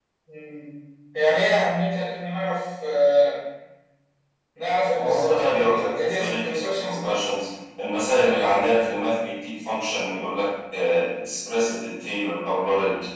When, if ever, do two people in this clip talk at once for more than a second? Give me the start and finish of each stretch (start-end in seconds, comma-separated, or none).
5.0-7.2